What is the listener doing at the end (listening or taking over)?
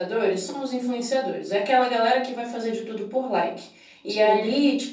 listening